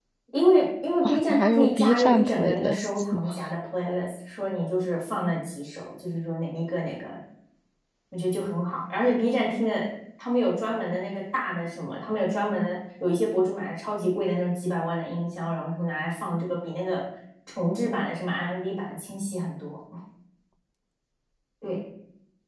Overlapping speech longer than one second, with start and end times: 1.1-3.2

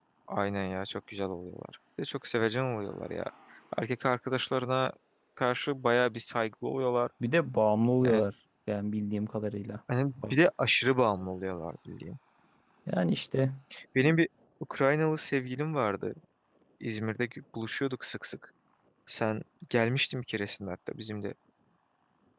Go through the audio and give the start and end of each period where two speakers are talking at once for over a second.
none

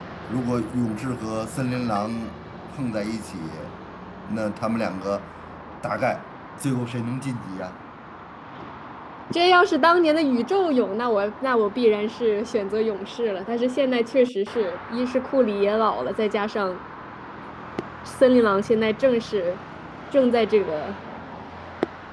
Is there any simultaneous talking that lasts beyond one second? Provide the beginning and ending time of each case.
none

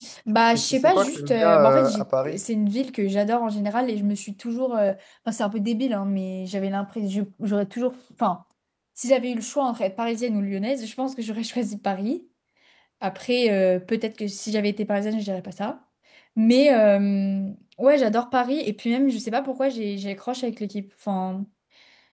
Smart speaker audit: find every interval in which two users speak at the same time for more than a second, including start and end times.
0.5-2.4

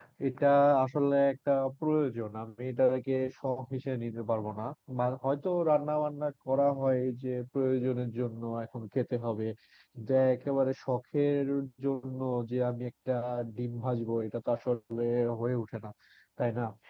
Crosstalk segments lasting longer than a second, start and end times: none

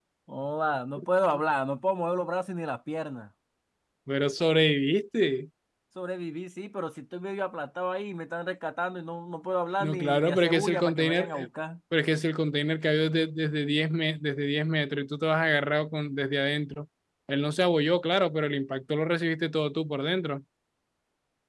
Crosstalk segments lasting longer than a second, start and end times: 9.8-11.5

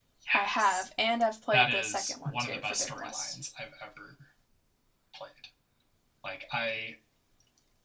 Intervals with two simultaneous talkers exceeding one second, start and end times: 1.5-3.4

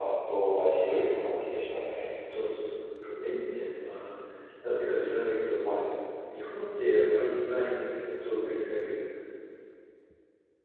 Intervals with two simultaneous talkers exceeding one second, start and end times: none

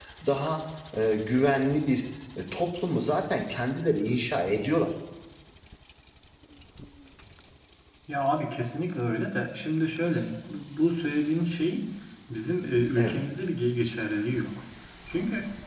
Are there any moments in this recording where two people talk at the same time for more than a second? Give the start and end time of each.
none

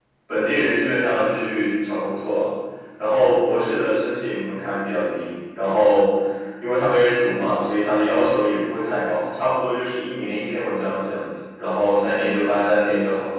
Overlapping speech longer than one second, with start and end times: none

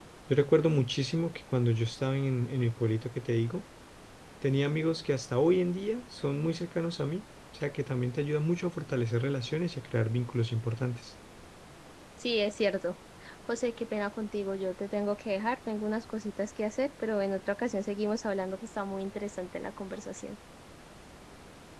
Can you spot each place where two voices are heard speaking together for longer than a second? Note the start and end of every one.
none

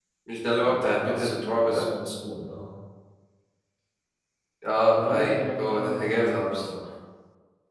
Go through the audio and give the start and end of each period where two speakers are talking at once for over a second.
0.6-1.8, 4.9-6.6

